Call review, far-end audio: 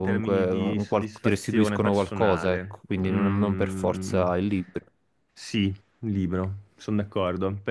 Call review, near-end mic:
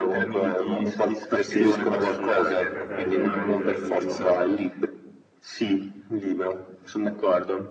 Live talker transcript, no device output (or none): penso di poter, potrei, potrei fare delle- veramente delle belle cose.